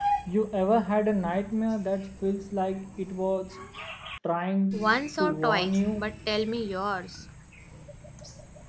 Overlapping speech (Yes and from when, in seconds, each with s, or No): Yes, from 4.7 s